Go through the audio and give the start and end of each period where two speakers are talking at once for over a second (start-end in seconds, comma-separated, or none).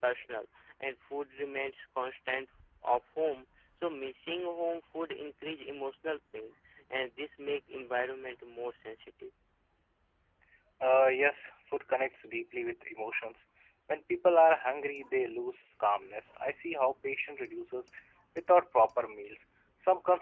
none